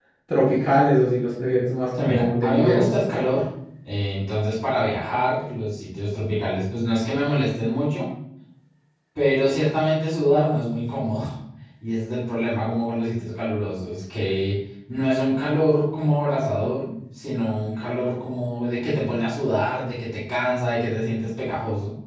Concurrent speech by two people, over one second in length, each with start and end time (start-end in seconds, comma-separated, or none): 1.9-3.2